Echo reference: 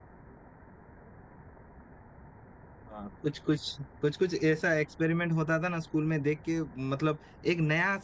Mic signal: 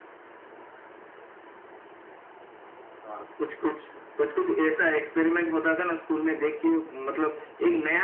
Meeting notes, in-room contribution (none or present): none